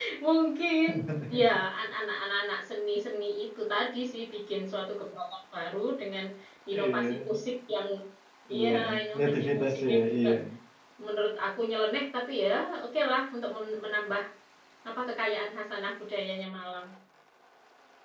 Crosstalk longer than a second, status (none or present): present